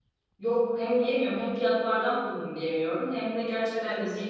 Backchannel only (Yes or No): Yes